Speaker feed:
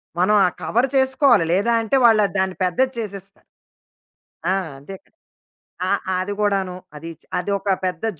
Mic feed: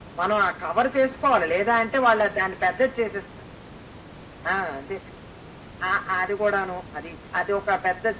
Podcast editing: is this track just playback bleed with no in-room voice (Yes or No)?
Yes